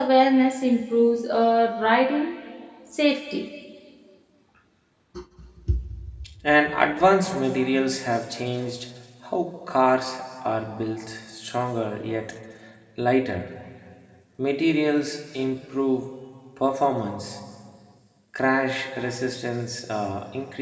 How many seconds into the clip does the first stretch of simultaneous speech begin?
none

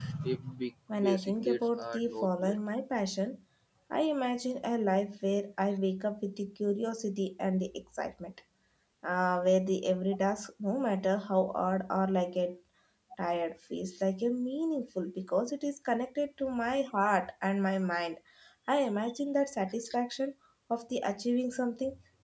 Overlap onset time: 1.0 s

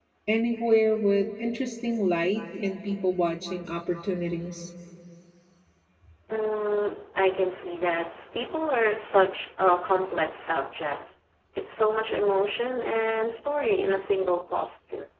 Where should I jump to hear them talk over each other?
none

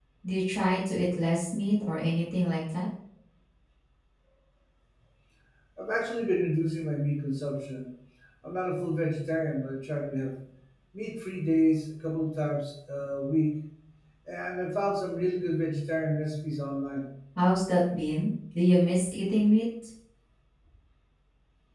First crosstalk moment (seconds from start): none

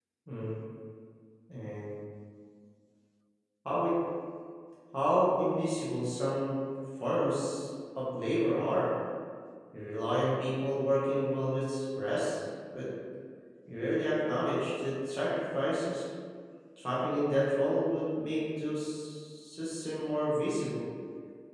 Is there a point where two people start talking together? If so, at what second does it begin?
none

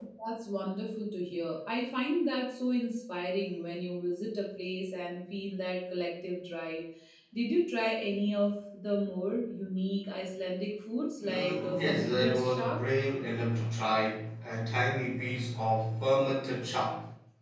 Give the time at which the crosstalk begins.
11.2 s

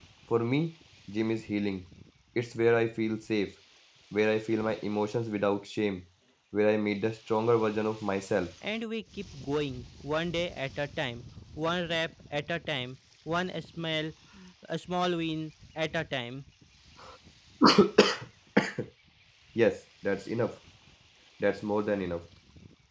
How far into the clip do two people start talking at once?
none

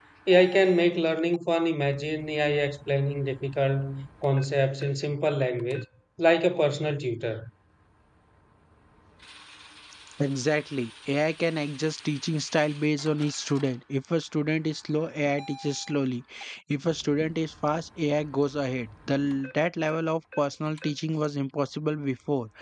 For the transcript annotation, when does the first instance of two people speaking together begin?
none

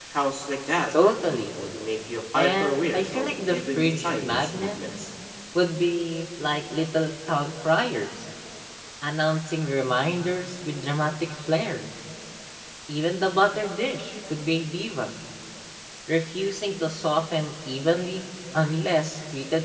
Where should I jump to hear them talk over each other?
2.3 s

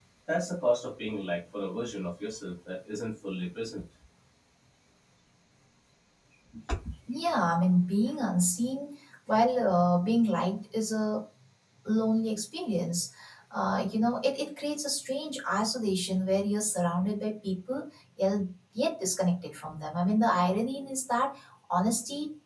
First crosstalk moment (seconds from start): none

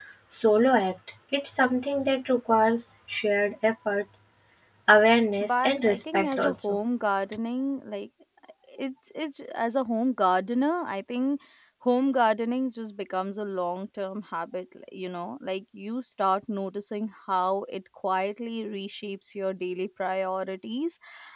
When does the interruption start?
5.4 s

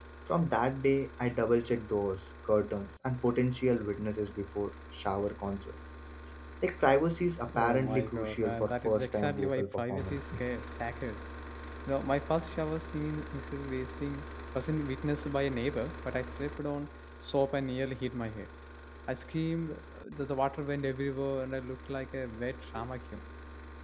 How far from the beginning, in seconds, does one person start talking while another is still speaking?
7.5 s

